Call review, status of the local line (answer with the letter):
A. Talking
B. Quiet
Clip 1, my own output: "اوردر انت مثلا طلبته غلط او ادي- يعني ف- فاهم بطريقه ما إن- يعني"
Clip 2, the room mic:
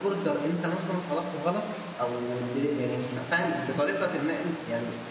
B